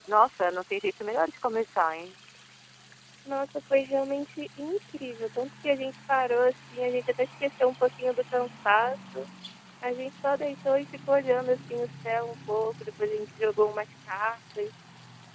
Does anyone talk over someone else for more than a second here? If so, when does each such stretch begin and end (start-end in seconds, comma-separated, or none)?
none